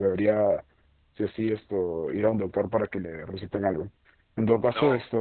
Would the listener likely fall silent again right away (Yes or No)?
Yes